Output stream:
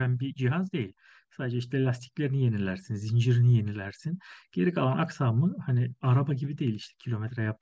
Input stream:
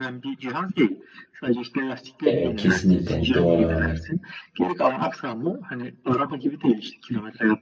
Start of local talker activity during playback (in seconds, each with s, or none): 2.2 s